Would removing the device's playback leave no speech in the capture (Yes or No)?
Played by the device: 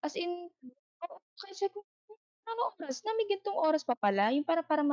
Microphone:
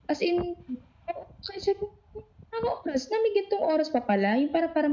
Yes